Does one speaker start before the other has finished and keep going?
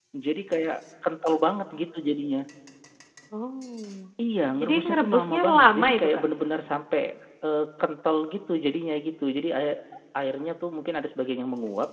Yes, from 4.6 s

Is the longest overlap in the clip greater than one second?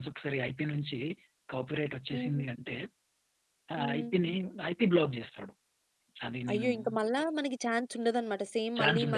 No

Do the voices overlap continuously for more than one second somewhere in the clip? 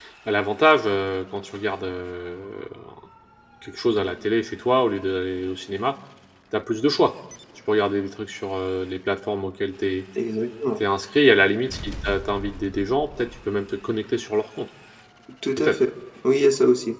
No

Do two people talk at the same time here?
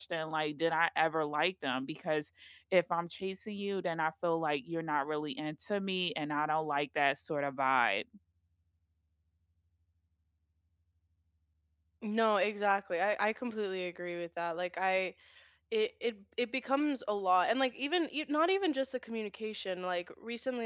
No

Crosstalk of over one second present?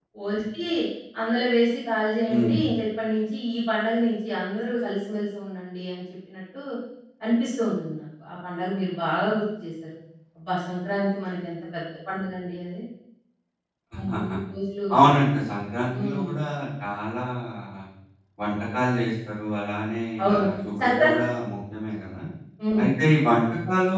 No

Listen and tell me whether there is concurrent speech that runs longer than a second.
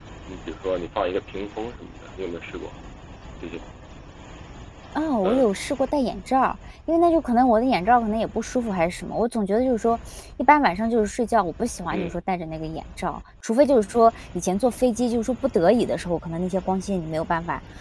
No

